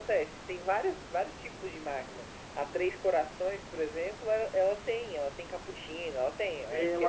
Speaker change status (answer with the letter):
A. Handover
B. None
A